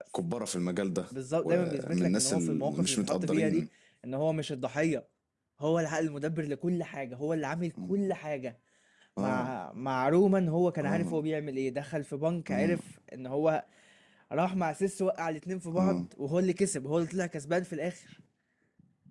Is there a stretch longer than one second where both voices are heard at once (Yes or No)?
Yes